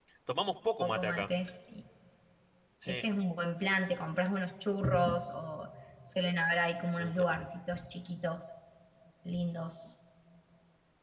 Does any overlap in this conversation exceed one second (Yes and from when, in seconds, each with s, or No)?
No